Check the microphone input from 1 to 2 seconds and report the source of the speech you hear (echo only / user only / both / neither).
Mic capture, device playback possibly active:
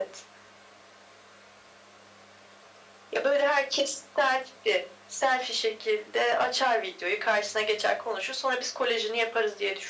neither